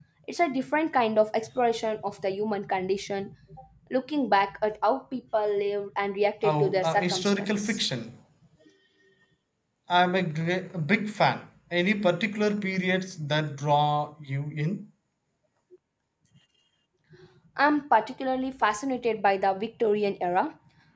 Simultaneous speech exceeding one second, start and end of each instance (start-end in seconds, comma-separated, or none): 6.4-7.8